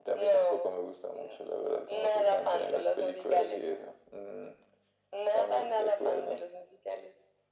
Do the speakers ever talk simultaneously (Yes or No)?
Yes